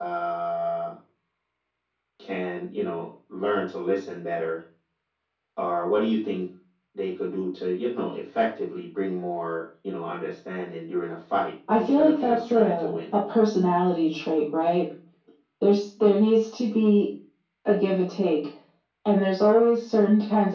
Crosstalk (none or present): present